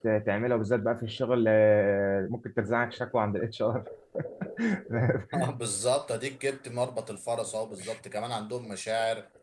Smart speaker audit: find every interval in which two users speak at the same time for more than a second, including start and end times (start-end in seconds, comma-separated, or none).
none